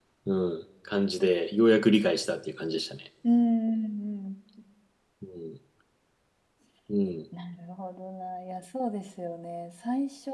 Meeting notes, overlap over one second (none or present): none